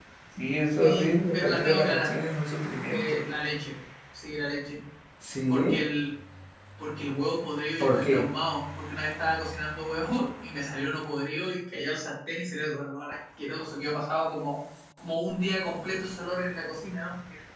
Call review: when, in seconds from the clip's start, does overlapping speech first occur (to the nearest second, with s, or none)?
1 s